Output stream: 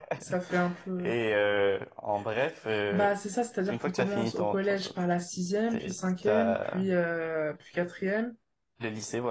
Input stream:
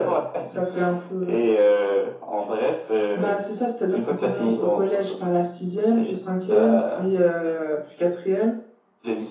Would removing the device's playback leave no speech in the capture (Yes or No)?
Yes